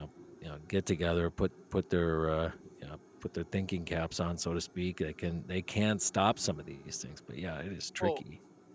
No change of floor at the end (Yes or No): No